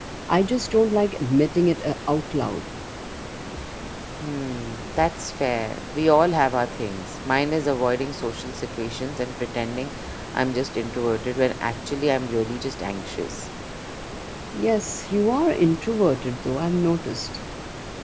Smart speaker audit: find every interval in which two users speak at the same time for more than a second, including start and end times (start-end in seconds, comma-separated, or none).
none